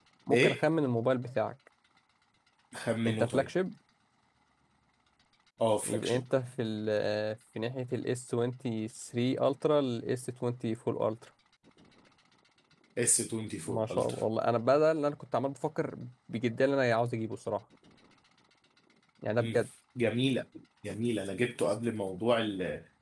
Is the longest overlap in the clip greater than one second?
No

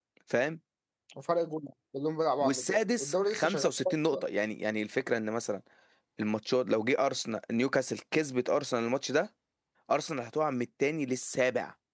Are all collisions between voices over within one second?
No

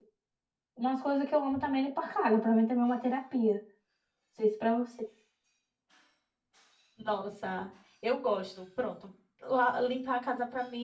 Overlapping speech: No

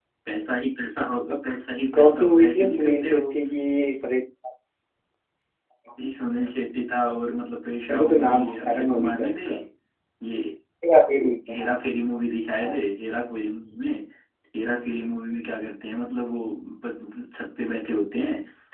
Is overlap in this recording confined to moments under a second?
No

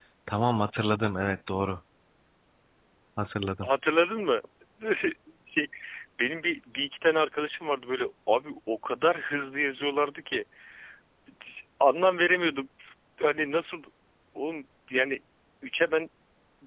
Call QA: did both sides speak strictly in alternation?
Yes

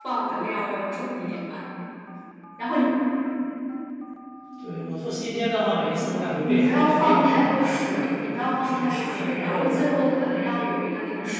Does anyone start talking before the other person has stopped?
Yes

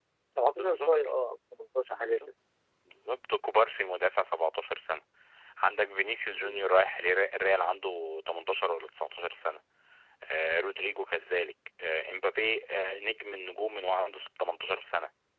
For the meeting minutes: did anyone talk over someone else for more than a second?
No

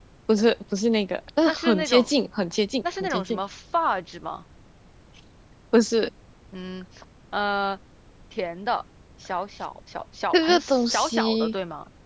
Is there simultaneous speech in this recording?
Yes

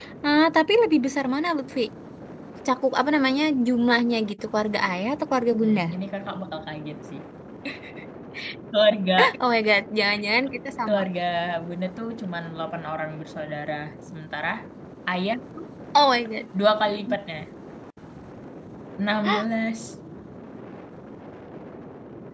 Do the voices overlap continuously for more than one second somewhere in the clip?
No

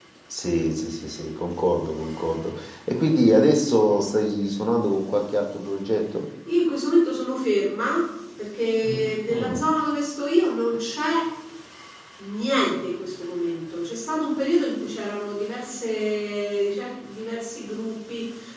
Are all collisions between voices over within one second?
Yes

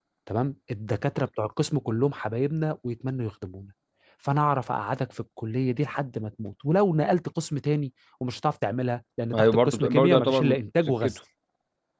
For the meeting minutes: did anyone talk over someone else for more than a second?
Yes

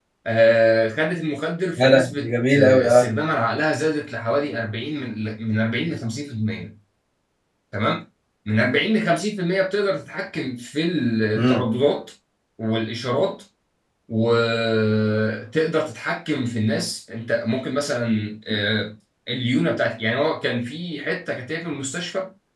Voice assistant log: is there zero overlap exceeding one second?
No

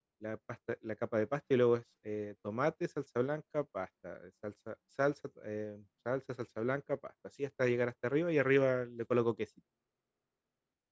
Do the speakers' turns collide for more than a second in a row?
No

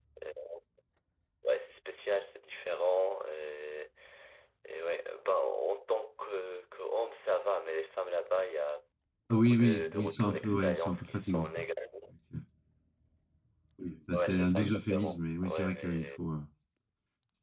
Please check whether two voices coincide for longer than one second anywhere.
Yes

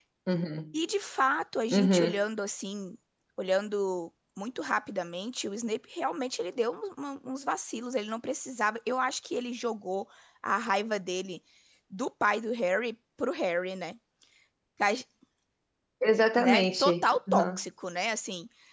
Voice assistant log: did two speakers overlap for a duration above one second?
Yes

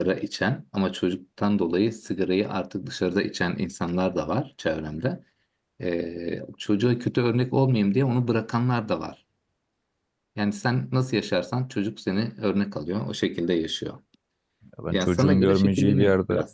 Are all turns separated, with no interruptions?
No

